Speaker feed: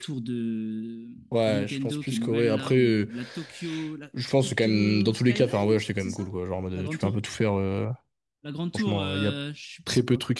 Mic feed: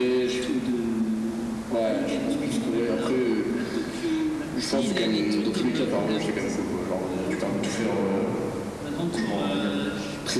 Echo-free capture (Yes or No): No